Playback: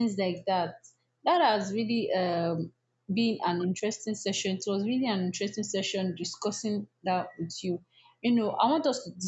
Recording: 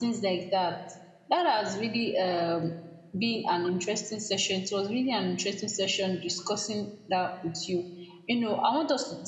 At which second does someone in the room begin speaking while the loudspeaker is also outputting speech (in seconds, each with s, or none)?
none